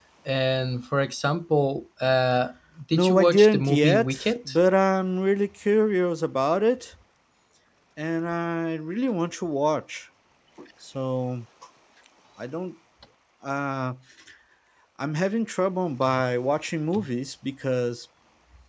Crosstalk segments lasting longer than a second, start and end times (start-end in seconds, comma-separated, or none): 2.9-4.5